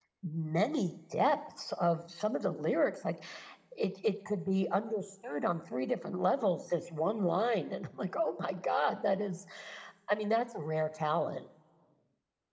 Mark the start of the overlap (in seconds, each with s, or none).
none